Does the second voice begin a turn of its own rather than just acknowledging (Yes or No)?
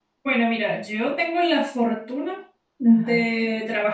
No